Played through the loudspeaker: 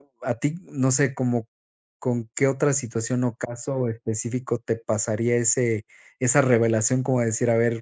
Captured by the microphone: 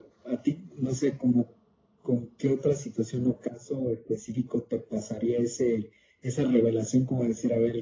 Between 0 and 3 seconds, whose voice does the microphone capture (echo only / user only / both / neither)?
echo only